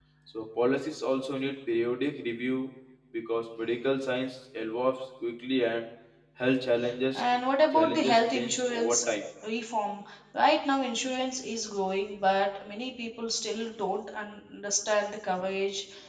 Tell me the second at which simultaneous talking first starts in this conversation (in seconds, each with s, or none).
7.7 s